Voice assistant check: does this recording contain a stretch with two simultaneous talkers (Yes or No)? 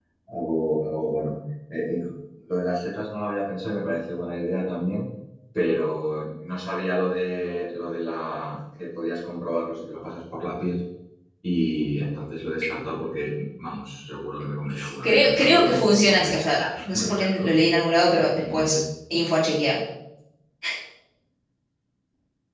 Yes